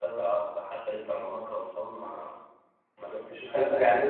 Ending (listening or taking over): taking over